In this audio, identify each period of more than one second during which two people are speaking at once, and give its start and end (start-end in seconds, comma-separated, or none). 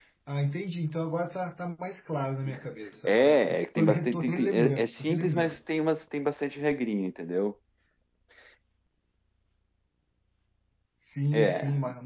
3.0-5.5